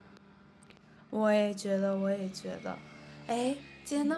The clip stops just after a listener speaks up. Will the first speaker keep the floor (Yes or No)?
Yes